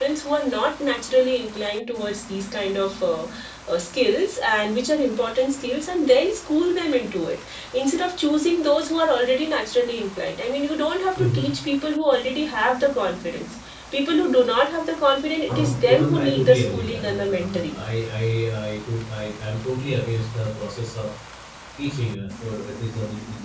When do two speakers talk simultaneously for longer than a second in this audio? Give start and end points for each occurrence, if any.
15.5-17.8

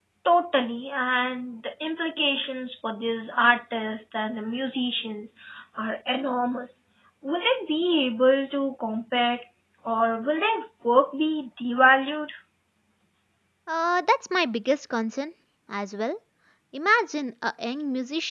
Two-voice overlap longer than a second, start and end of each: none

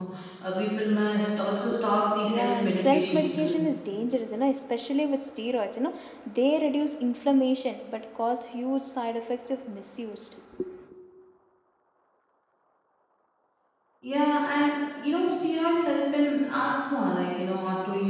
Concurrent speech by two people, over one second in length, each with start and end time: 2.3-3.6

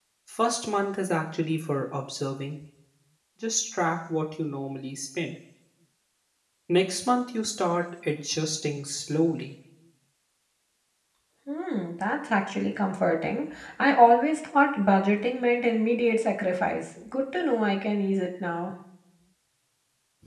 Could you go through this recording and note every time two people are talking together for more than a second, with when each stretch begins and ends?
none

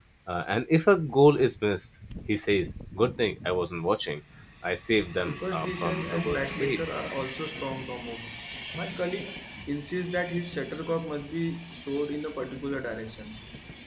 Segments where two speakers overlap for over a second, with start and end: 5.2-6.8

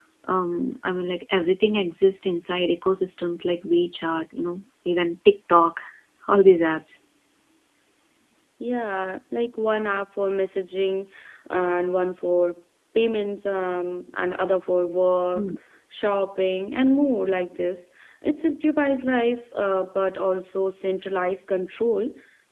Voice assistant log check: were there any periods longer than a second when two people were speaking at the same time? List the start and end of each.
none

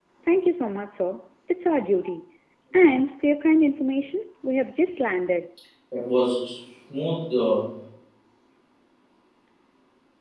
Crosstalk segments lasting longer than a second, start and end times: none

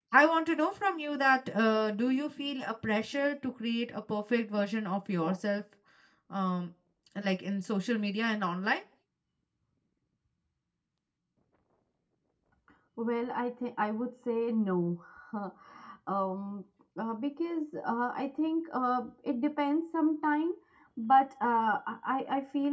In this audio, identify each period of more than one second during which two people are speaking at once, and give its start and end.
none

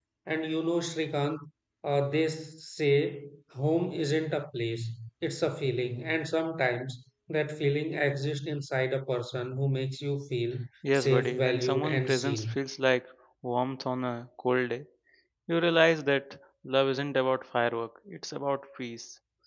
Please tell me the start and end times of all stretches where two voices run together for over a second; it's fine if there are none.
10.9-12.6

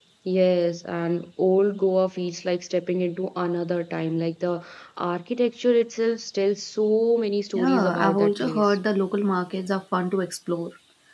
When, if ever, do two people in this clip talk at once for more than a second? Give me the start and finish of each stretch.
7.5-8.8

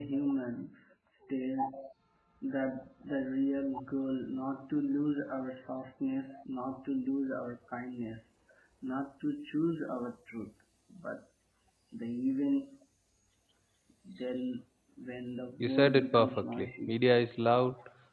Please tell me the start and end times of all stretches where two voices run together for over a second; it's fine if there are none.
15.6-16.9

